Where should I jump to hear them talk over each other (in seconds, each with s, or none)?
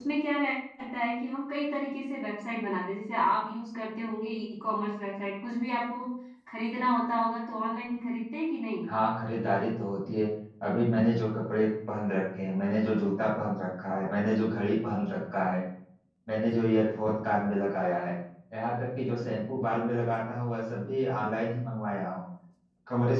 none